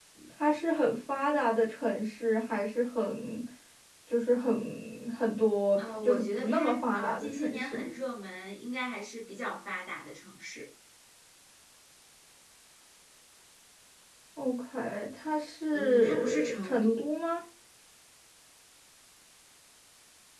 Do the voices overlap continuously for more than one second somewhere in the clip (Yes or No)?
Yes